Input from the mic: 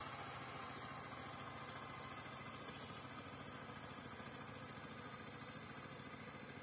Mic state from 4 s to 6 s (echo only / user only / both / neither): neither